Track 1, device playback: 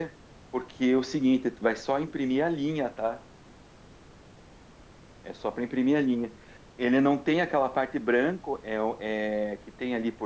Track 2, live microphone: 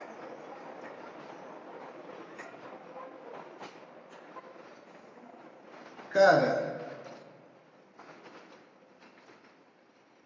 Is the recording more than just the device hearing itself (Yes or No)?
Yes